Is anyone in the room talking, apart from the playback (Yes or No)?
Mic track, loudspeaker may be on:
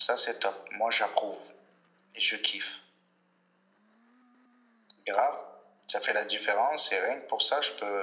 No